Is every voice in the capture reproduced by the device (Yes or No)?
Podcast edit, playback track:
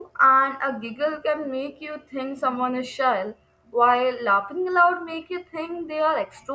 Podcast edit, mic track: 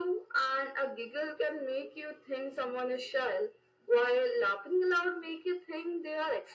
Yes